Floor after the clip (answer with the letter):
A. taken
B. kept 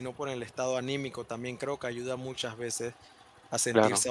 B